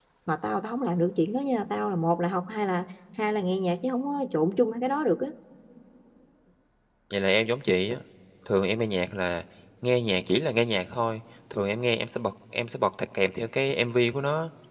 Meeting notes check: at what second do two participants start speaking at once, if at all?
none

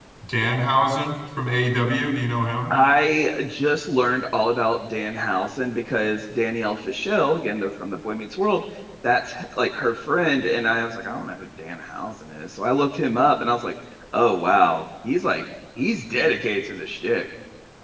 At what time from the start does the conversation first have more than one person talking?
none

